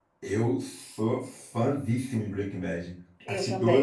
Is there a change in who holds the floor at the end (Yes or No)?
No